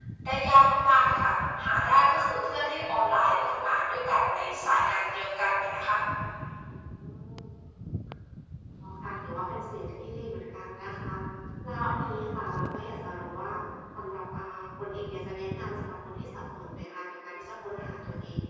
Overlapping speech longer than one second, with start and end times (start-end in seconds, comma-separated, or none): none